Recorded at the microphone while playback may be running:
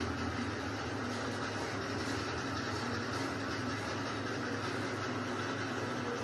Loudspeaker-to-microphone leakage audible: No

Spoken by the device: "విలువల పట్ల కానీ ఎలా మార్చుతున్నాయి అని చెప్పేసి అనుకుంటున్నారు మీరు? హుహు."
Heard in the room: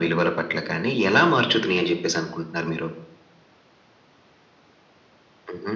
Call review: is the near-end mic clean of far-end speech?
No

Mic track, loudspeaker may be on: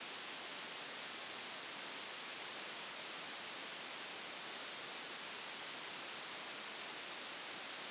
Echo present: No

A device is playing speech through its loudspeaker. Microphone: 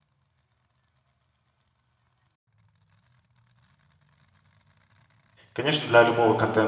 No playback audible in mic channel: Yes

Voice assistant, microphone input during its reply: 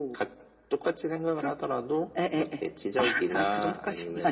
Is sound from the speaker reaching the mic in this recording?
Yes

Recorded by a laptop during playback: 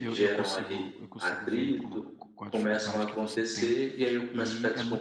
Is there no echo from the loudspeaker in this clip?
No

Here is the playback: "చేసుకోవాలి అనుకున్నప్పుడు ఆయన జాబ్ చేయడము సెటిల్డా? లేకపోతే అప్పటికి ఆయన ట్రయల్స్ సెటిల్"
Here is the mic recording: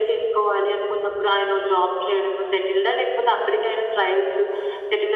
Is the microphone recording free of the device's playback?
No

